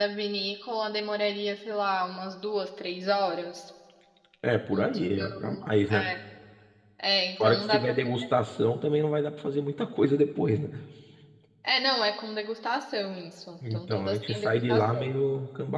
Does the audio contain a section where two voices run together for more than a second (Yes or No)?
Yes